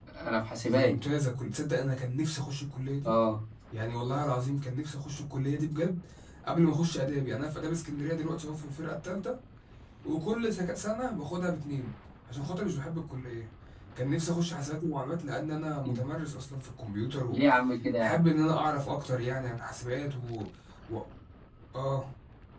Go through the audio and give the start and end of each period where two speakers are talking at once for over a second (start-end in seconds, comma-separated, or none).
none